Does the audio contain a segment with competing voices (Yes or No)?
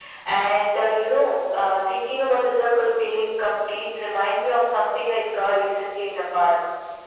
No